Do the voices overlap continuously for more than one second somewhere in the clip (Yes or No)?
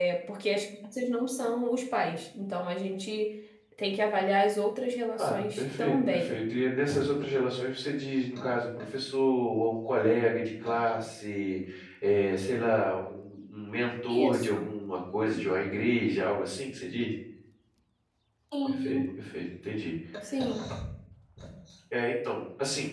Yes